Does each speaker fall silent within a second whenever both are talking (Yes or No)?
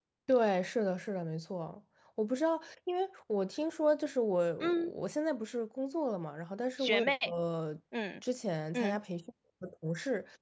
Yes